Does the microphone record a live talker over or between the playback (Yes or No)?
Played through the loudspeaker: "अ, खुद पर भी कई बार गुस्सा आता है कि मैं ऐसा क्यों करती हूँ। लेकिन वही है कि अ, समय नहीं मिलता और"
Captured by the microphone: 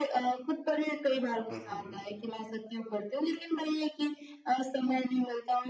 Yes